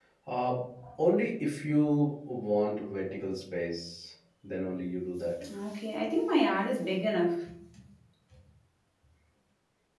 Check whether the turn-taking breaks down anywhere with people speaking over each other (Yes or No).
No